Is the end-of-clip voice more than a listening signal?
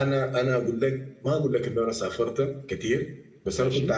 No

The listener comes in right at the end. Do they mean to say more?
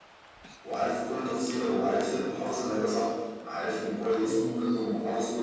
No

